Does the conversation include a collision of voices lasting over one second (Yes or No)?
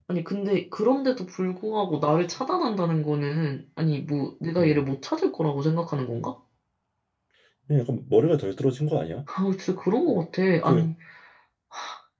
No